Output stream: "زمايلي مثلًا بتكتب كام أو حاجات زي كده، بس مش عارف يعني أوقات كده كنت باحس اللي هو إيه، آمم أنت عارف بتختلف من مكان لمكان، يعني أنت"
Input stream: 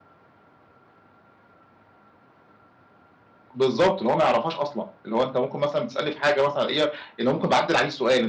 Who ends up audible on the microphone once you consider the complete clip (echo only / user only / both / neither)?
user only